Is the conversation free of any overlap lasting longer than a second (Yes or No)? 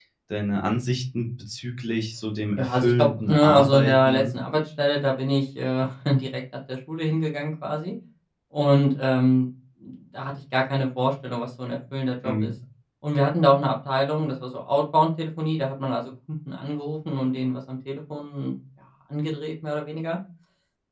No